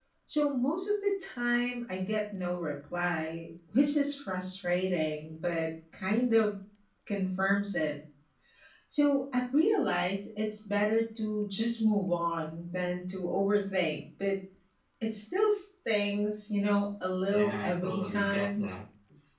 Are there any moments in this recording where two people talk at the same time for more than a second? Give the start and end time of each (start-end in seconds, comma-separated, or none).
17.3-18.7